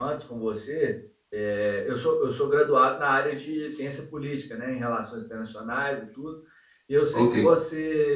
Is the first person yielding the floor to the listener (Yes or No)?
No